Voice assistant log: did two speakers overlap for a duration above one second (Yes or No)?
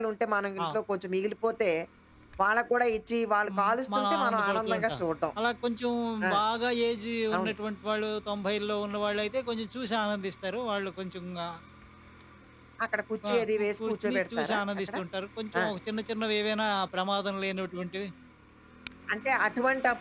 Yes